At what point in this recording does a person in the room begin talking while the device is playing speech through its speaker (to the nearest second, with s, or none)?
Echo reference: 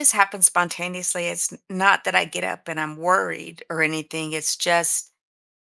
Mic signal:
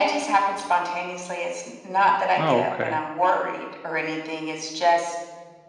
2 s